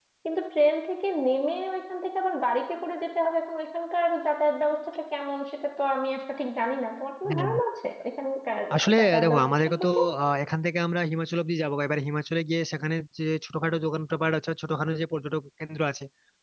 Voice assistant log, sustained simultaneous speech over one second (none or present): present